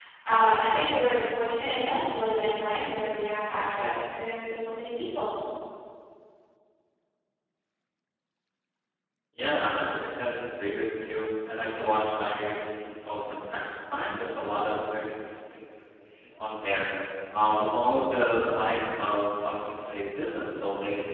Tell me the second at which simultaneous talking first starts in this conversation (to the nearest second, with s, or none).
none